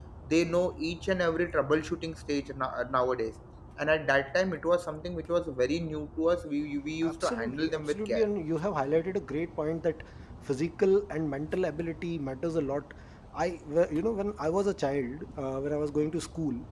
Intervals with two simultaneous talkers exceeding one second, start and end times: 7.0-8.2

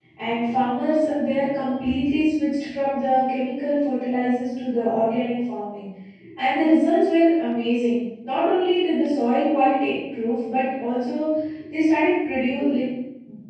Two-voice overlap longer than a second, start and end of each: none

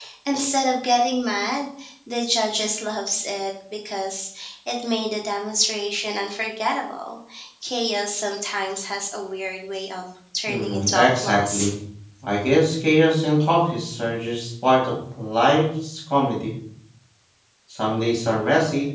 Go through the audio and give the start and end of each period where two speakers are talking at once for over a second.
10.5-11.7

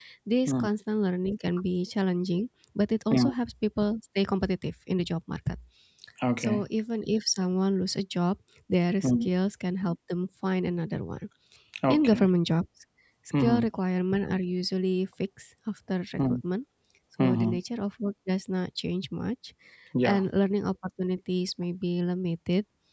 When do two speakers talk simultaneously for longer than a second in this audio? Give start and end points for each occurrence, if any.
none

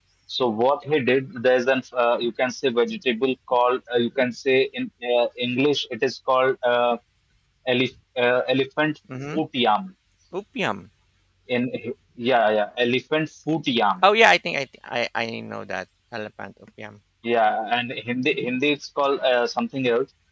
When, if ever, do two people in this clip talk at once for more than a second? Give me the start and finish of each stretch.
none

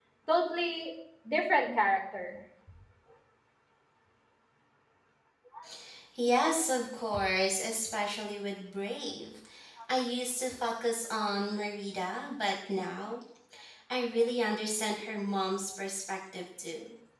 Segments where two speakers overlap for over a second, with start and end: none

